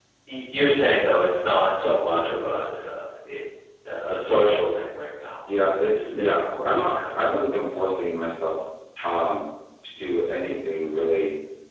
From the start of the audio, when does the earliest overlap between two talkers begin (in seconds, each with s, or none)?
5.5 s